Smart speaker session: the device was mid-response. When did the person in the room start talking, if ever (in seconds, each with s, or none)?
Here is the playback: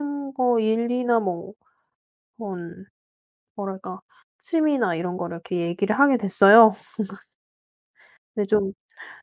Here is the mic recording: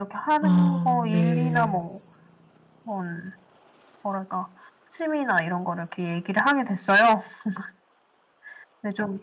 0.4 s